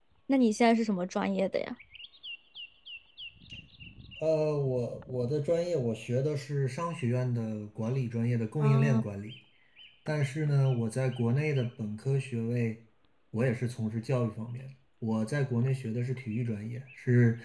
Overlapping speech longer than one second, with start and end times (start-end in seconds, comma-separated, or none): none